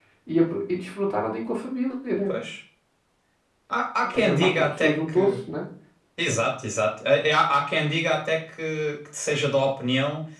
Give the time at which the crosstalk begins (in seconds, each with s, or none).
4.1 s